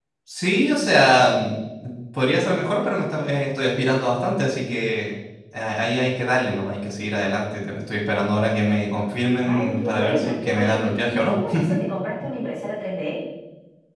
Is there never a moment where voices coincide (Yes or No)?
No